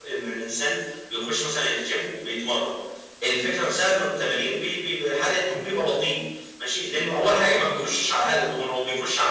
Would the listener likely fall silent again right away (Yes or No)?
Yes